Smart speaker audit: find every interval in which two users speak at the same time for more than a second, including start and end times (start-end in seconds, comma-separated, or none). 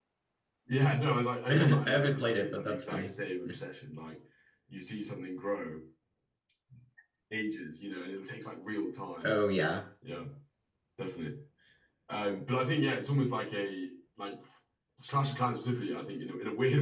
1.5-3.1